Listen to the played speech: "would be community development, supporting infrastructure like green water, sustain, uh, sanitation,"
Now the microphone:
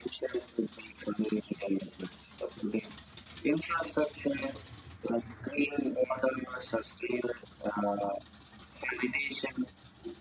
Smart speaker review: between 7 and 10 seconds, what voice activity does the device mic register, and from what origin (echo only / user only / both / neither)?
echo only